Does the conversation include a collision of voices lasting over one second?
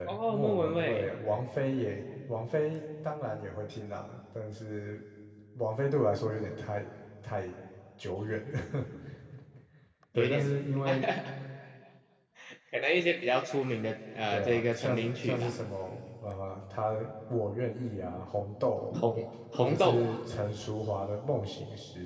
Yes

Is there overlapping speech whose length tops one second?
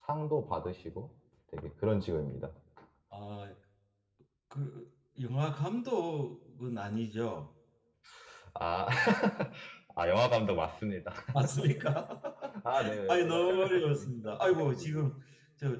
Yes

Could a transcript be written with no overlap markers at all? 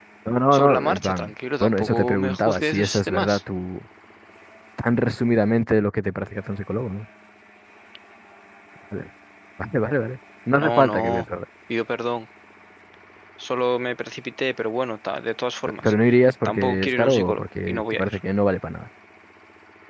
No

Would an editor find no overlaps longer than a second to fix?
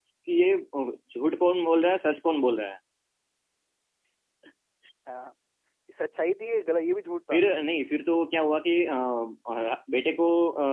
Yes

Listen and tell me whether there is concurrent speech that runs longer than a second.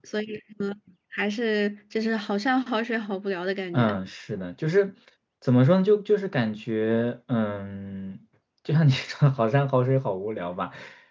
No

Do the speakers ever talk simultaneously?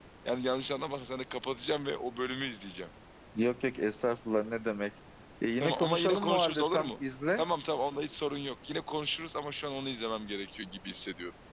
Yes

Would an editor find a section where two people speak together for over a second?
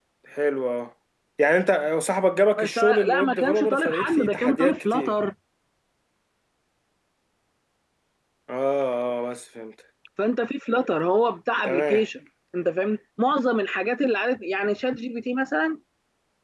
Yes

